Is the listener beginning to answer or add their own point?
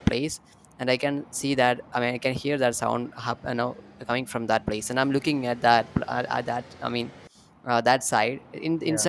No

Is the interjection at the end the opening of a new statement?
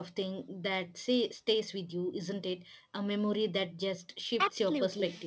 Yes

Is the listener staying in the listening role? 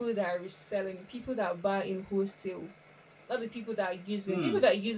Yes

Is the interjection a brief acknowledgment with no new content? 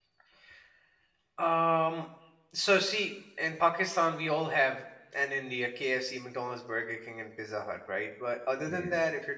Yes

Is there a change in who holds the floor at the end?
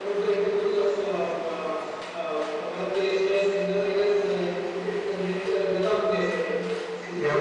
No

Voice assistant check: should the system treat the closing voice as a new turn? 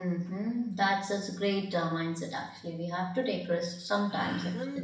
Yes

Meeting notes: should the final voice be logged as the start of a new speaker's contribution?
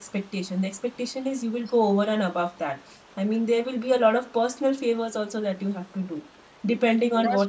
No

